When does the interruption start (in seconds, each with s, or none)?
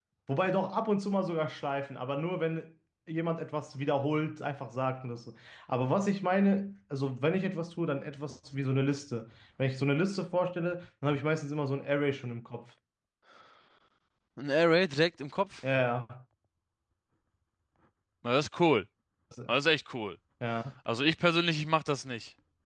none